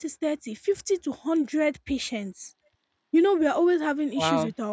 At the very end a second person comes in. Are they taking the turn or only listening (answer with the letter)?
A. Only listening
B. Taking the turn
A